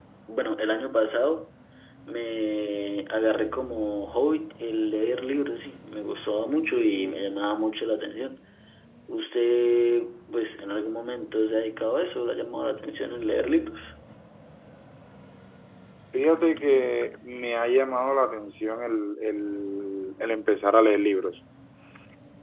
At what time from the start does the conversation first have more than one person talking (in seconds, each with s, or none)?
none